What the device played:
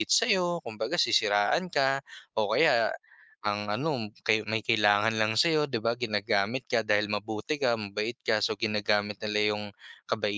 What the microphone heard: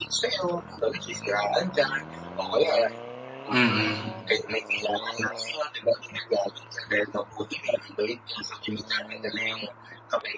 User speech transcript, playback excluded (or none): mm.